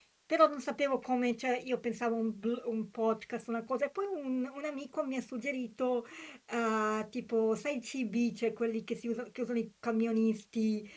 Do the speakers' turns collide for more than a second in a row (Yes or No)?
No